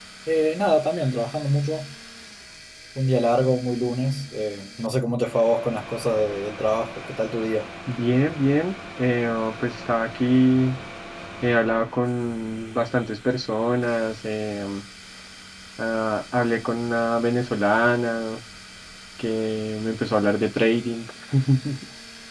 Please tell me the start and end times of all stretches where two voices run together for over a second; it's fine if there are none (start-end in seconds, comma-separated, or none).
none